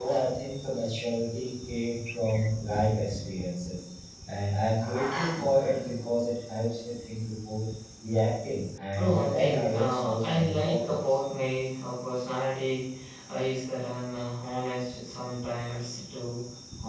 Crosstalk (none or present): present